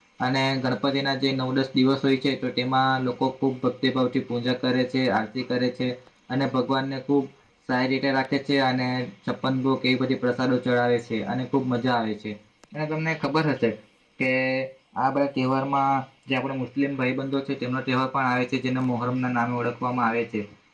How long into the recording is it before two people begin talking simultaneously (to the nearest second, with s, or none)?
none